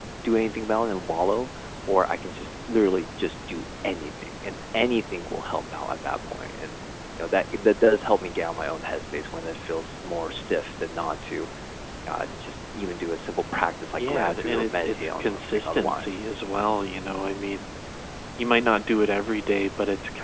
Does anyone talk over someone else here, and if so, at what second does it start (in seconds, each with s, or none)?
14.0 s